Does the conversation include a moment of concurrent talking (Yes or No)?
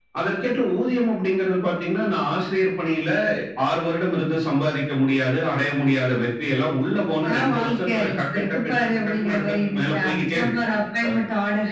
Yes